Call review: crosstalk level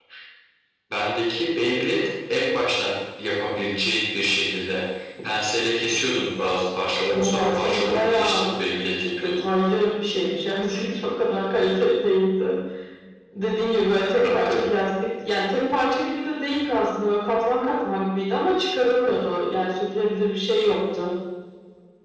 present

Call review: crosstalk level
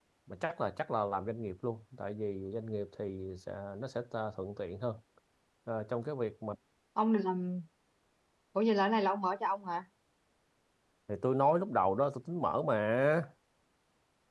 none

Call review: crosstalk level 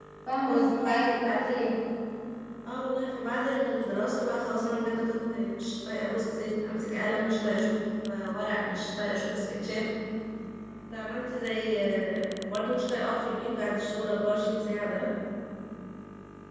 present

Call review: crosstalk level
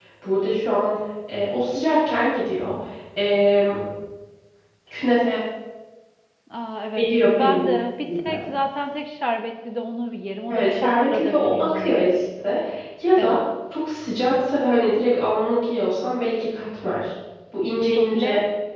present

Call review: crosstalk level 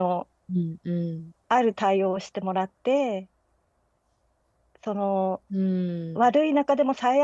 none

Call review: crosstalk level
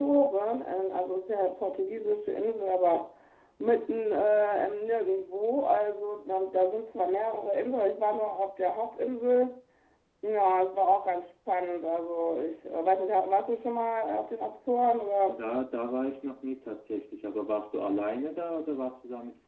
none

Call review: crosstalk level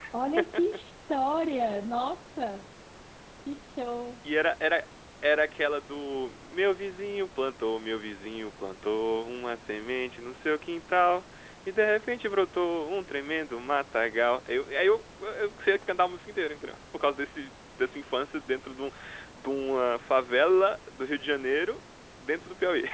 none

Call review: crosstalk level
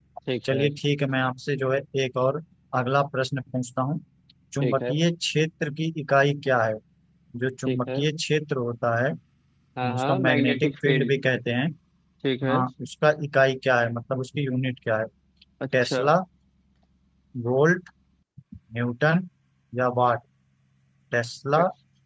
present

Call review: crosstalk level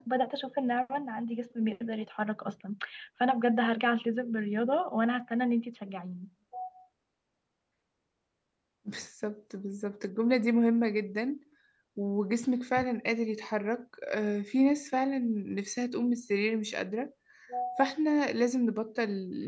none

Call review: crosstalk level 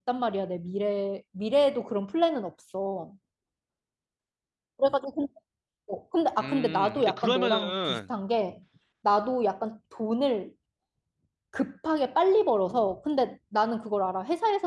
present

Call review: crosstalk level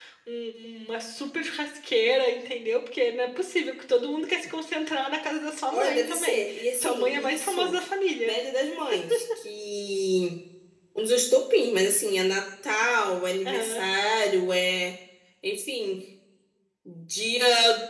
present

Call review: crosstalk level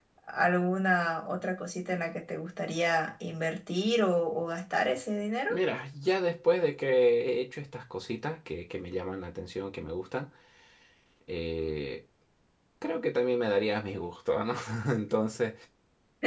none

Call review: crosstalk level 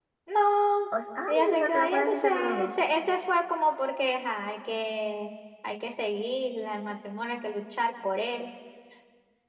present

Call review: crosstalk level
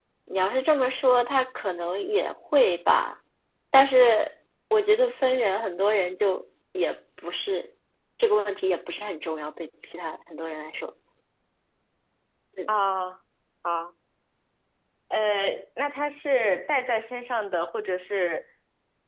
none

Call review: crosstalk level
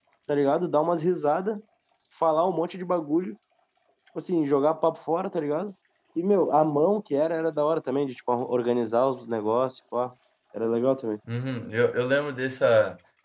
none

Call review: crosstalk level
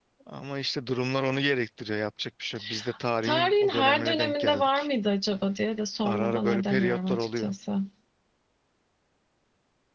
present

